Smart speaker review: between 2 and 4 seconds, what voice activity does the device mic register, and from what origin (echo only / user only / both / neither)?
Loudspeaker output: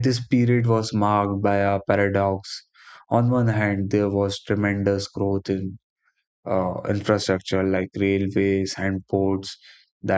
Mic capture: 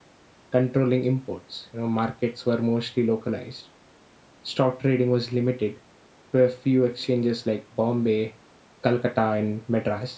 user only